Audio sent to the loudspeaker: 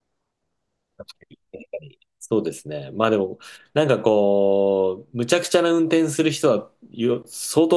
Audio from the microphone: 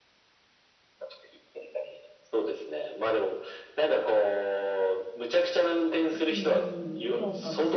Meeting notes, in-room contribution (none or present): present